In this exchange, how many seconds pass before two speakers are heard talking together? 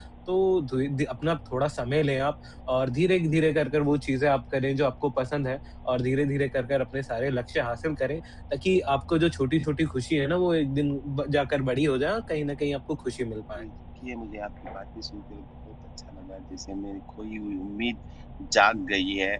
none

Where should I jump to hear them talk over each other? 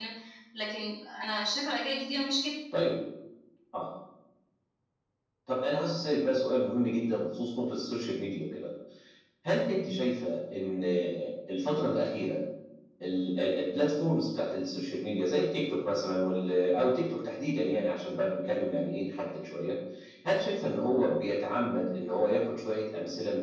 none

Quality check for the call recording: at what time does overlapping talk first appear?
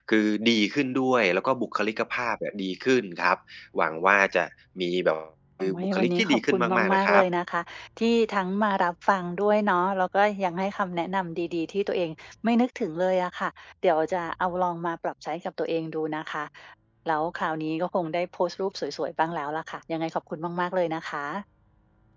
5.6 s

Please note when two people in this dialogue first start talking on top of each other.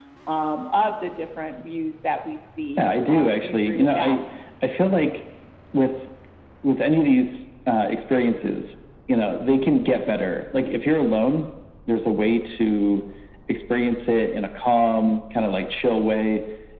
2.8 s

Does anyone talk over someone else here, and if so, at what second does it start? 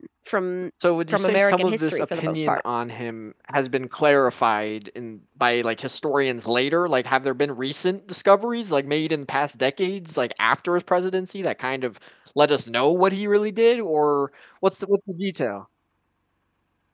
1.1 s

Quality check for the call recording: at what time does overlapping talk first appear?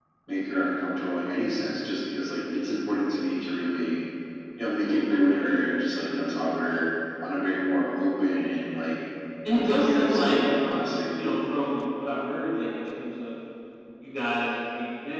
9.5 s

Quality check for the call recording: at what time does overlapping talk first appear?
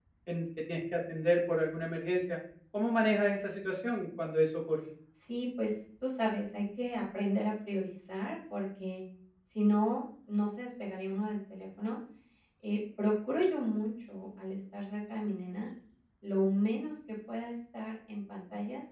none

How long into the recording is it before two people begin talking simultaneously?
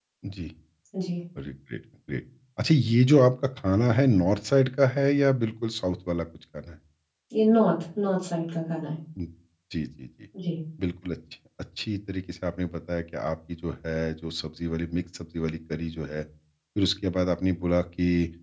none

